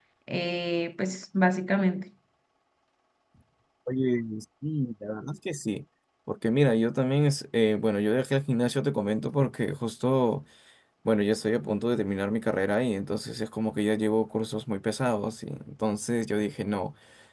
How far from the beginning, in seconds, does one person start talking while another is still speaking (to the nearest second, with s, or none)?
none